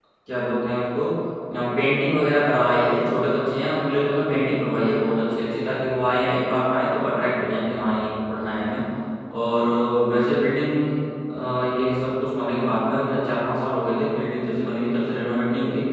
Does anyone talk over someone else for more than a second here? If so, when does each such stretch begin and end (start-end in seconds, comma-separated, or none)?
none